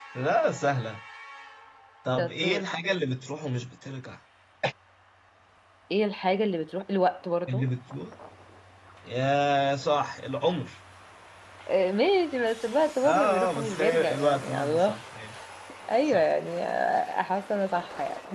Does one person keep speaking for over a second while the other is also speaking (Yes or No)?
Yes